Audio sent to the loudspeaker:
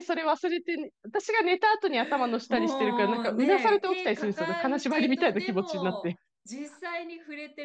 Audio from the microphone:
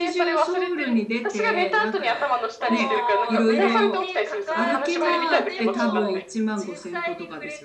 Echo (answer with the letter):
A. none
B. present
B